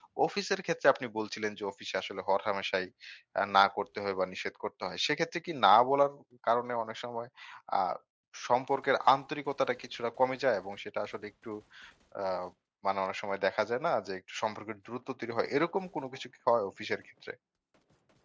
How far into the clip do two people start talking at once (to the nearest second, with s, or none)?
none